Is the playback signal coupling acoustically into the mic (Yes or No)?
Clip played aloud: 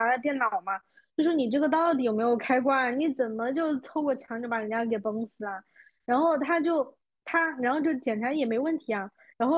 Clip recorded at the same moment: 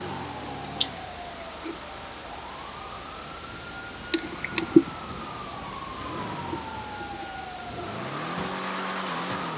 No